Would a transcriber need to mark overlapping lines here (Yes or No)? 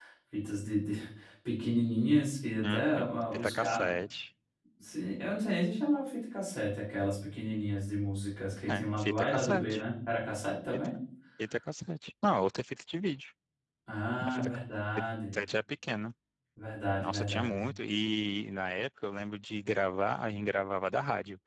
Yes